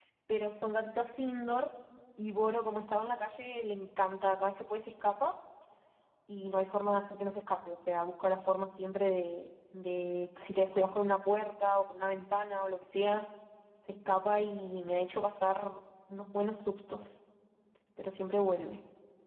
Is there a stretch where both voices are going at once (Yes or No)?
No